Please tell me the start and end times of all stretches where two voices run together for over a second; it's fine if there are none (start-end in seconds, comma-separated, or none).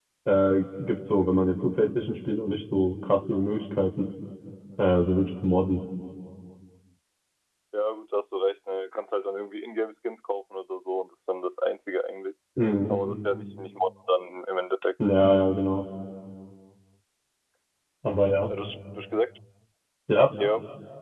none